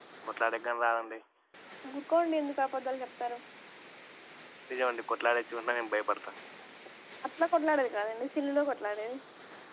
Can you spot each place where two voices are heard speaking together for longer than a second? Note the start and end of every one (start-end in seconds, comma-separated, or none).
none